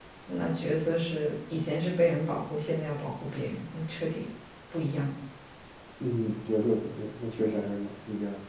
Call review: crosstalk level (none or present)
none